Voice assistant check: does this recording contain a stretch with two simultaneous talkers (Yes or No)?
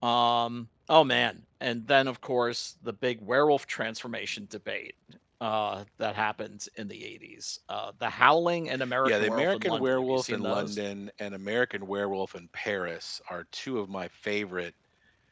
Yes